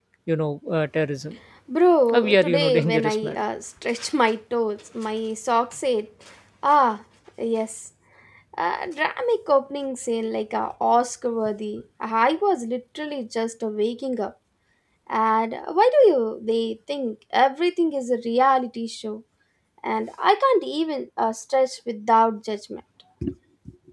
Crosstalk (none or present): present